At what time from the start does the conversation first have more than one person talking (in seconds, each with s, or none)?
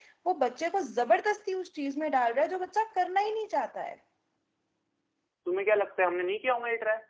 none